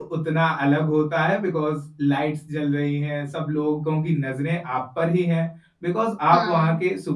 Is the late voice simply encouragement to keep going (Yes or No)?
Yes